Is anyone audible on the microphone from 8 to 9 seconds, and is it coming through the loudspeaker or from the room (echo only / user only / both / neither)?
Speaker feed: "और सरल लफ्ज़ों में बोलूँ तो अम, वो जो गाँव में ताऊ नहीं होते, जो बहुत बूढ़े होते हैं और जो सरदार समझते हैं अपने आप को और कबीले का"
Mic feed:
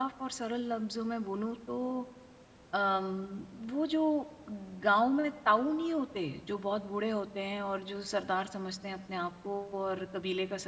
echo only